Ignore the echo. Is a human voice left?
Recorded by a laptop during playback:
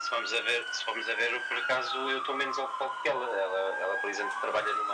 No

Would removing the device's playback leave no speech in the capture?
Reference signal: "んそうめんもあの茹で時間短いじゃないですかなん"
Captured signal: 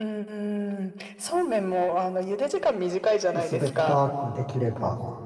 No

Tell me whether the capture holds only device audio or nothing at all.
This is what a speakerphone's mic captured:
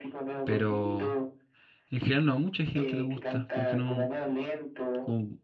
No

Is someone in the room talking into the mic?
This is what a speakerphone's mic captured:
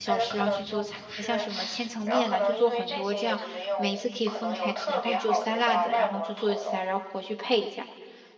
Yes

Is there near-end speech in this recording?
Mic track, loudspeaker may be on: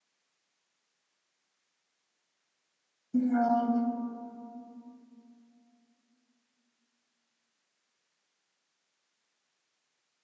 Yes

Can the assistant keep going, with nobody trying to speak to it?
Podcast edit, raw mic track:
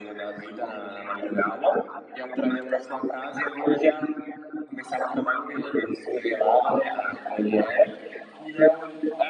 Yes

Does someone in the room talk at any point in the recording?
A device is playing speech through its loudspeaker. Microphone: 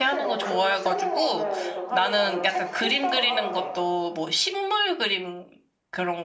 Yes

